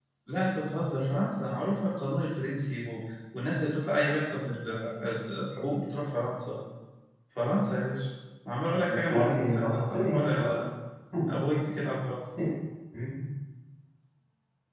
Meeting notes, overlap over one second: present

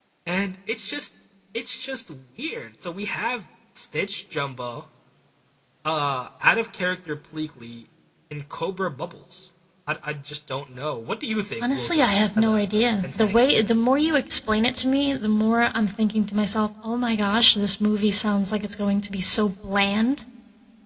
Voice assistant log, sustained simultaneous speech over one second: present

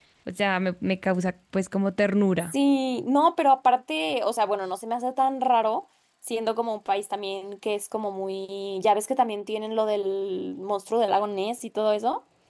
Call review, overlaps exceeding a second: none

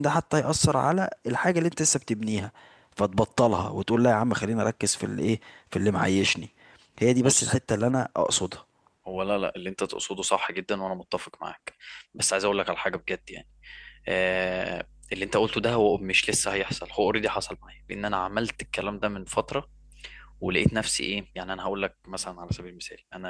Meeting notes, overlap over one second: none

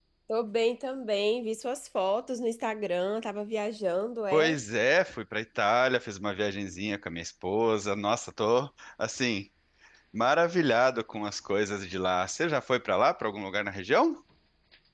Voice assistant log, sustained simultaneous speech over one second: none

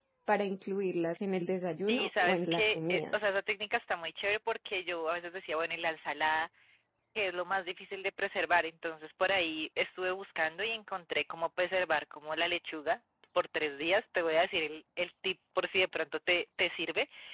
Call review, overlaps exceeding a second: present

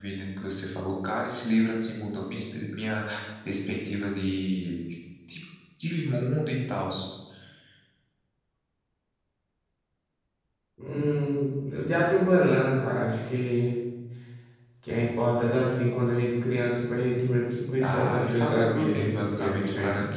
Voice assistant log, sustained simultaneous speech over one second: present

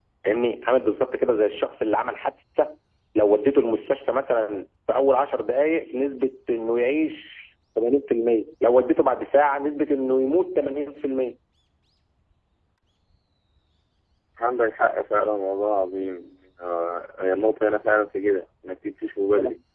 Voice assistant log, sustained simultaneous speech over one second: none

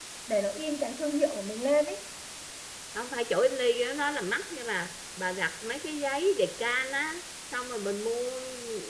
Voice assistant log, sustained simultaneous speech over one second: none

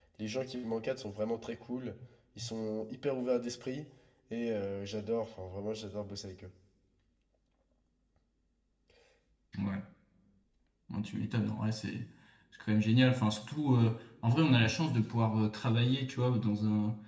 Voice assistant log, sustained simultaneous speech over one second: none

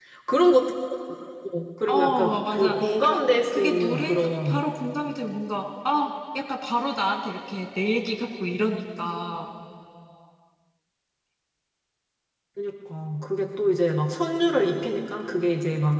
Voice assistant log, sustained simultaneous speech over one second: present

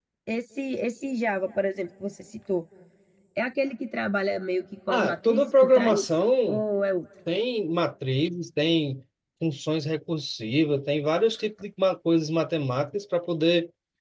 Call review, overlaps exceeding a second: present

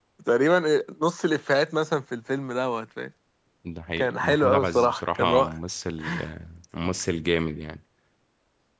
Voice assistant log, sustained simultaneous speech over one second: present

